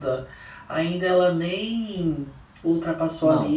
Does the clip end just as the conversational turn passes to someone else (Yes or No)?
No